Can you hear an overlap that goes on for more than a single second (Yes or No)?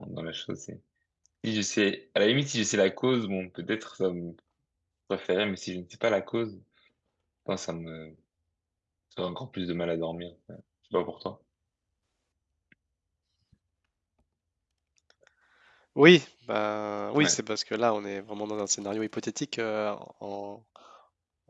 No